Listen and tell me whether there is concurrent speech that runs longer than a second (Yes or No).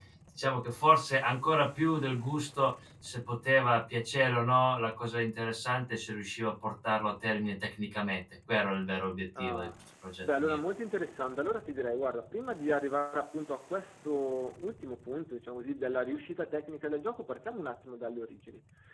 No